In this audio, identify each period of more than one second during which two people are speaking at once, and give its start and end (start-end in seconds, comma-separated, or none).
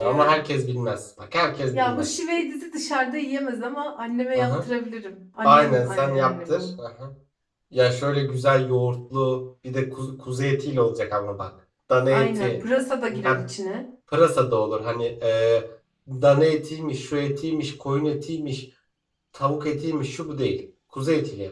5.4-6.7